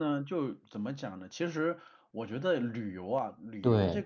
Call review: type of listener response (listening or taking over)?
listening